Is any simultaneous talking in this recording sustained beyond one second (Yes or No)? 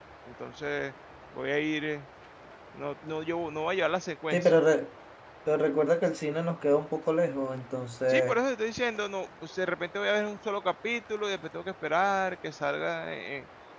No